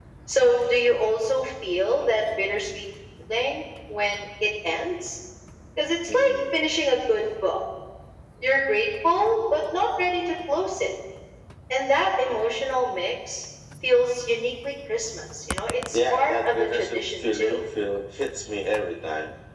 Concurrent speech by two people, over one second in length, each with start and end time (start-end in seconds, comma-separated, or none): 15.9-17.6